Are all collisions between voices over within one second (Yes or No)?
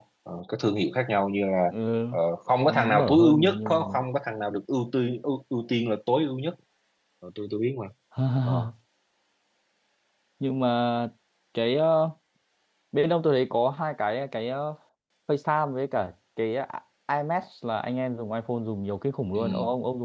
No